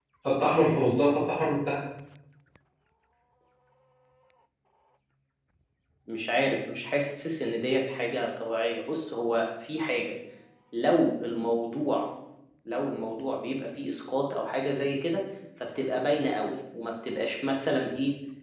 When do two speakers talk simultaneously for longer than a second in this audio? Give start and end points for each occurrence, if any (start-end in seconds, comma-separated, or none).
none